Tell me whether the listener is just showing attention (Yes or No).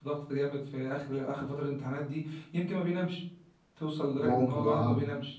Yes